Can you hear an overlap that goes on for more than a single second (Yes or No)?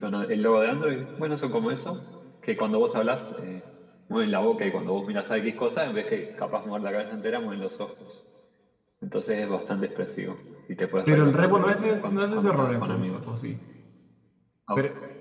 Yes